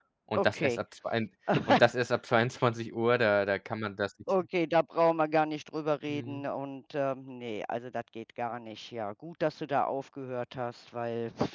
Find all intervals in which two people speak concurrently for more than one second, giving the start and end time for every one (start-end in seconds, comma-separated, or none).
none